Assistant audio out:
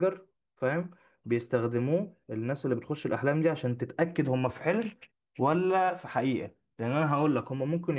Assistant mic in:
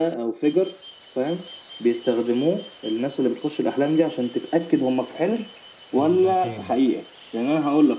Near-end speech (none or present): present